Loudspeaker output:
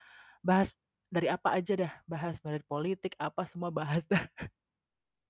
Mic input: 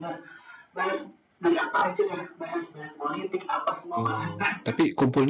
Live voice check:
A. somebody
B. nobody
A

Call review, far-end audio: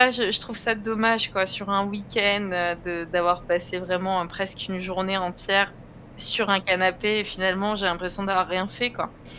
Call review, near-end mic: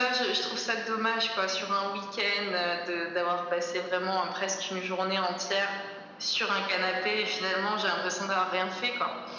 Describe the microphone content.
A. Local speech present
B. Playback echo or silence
B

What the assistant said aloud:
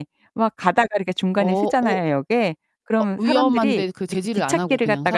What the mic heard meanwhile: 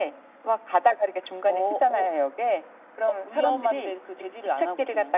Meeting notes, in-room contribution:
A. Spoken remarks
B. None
B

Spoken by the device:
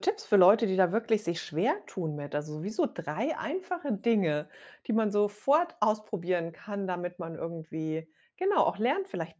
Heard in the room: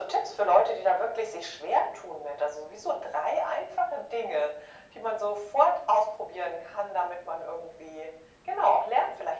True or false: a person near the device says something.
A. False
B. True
A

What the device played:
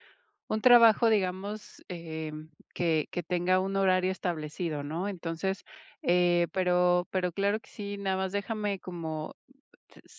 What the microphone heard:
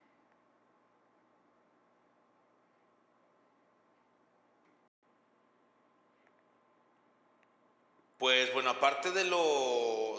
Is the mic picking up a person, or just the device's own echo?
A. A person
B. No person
A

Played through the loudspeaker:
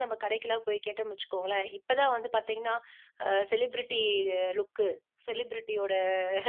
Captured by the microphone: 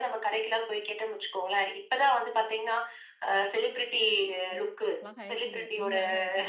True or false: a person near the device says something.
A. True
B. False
A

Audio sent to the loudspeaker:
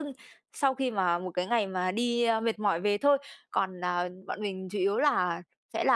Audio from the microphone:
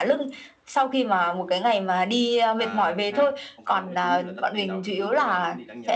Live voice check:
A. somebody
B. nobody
A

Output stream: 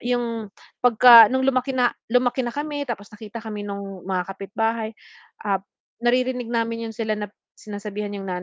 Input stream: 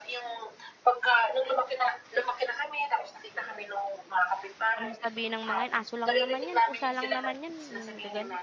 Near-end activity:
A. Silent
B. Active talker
B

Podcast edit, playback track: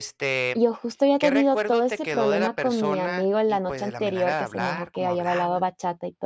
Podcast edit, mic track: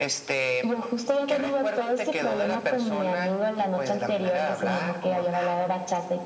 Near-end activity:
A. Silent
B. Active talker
A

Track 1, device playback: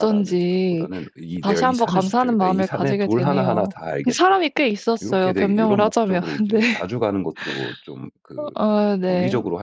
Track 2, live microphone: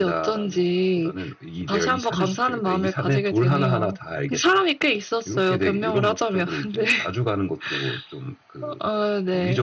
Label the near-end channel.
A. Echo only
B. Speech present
A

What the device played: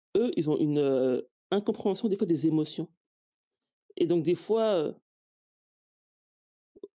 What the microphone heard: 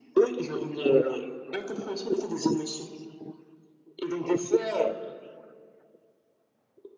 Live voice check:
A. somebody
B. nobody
B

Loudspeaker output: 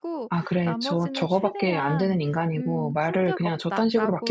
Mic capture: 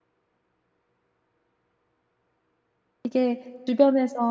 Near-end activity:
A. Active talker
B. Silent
A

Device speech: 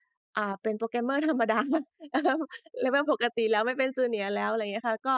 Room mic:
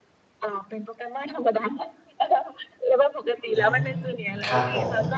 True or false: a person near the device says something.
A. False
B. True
B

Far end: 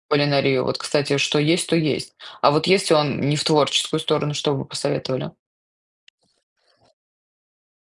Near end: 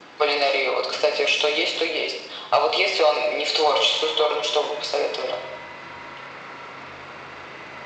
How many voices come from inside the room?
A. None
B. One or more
A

